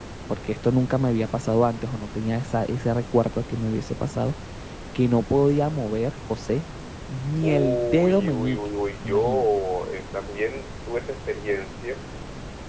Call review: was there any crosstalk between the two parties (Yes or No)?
Yes